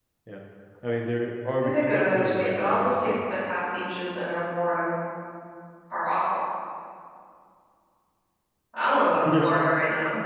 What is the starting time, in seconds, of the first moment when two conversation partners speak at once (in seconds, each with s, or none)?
1.6 s